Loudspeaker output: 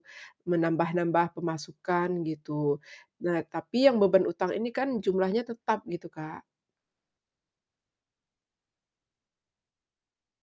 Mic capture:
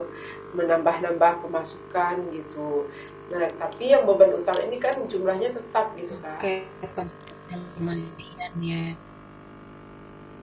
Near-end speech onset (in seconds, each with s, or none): 6.1 s